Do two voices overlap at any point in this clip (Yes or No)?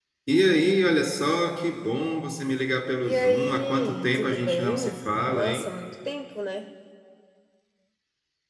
Yes